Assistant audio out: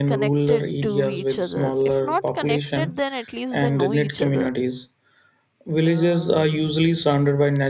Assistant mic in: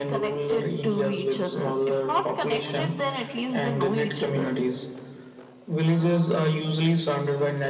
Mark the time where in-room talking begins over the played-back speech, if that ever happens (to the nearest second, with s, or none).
none